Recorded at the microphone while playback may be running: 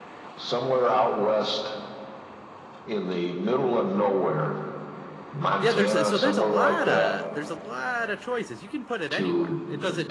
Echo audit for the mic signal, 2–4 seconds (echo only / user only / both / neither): echo only